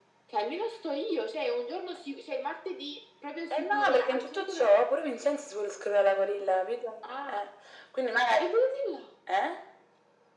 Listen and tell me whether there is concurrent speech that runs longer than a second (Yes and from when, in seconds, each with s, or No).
Yes, from 3.5 s